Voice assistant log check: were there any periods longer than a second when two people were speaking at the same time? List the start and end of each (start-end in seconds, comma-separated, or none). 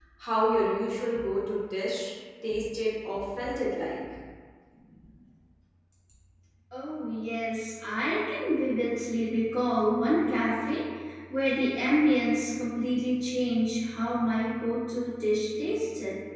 none